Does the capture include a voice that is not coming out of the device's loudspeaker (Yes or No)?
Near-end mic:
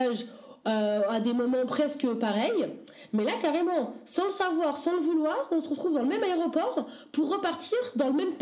No